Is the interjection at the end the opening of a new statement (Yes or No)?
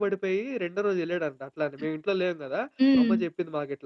No